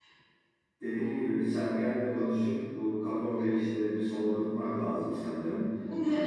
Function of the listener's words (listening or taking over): taking over